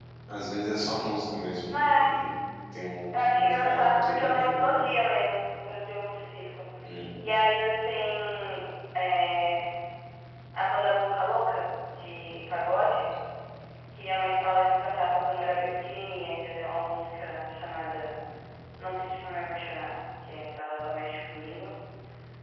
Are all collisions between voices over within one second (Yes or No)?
No